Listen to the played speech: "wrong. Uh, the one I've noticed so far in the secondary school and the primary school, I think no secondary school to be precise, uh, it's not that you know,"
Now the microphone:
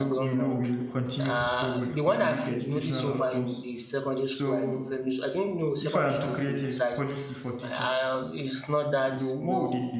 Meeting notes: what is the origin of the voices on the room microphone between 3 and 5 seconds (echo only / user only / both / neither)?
both